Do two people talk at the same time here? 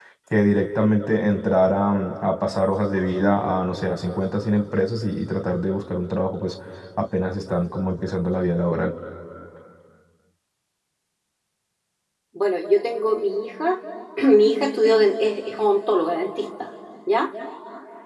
No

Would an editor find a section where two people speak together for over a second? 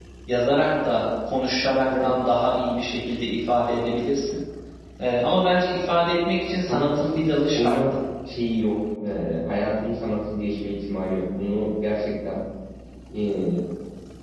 Yes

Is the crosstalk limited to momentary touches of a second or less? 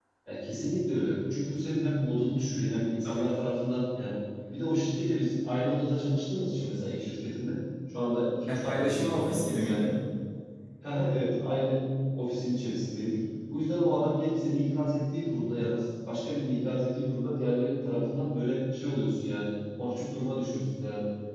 No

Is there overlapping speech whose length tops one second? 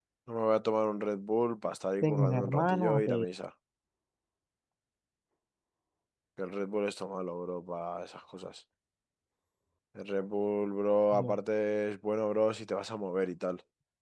Yes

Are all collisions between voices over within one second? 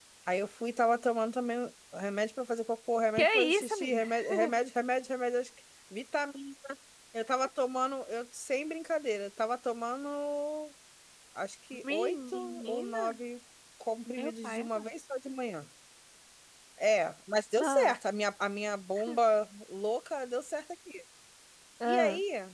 No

